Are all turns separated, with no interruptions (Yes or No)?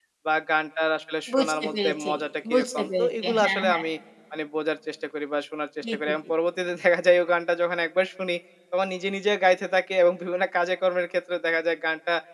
No